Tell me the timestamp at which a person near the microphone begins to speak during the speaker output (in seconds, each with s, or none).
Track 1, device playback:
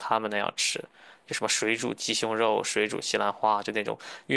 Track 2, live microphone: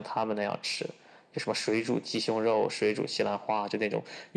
none